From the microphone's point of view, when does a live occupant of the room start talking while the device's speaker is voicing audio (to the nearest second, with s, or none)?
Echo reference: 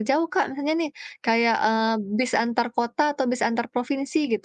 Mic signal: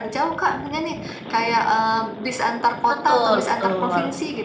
3 s